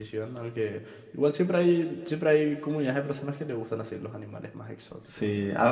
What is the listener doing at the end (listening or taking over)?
taking over